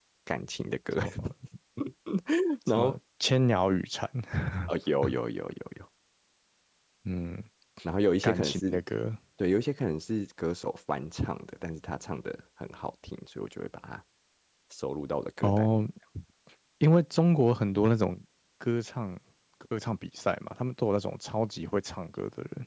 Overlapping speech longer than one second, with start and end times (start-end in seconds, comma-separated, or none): none